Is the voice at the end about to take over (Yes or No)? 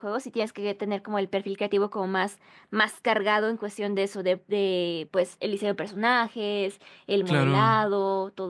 No